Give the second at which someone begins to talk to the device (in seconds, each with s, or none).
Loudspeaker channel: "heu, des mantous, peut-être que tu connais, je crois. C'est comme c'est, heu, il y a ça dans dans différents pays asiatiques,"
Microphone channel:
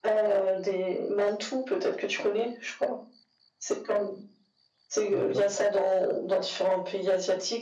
5.1 s